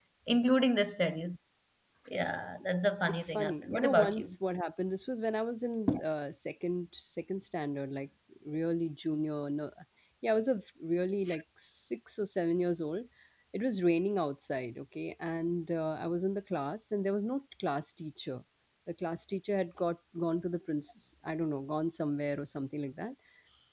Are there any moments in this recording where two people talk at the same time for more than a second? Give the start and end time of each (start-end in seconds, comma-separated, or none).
3.1-4.3